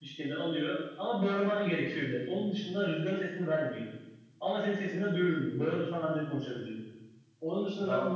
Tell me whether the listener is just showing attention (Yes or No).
Yes